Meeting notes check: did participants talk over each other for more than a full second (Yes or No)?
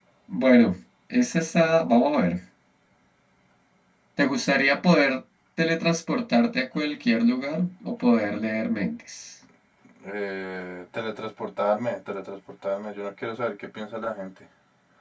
No